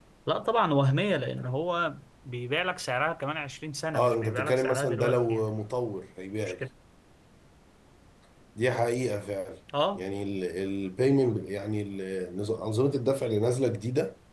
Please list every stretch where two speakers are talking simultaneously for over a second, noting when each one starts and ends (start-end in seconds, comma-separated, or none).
4.0-5.5